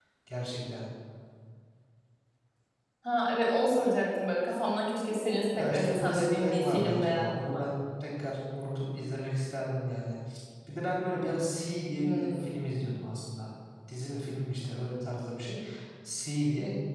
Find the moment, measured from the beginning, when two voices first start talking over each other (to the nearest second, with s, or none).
6 s